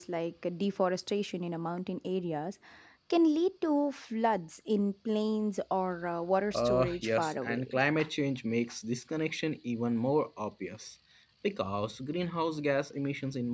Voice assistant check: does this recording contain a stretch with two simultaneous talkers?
Yes, from 6.5 s

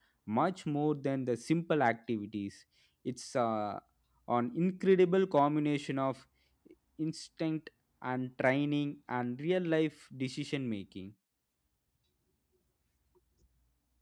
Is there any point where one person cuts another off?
No

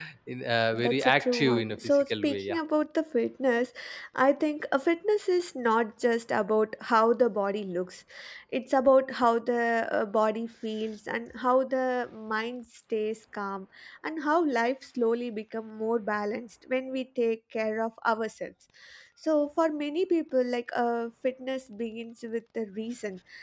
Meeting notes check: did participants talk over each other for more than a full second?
Yes, from 0.7 s

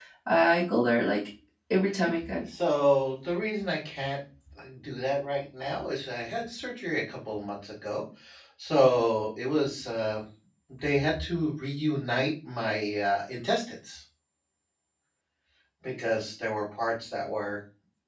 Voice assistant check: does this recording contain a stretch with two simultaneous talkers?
No

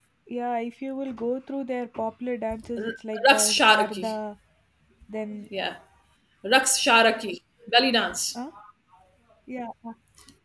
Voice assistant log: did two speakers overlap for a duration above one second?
Yes, from 2.8 s

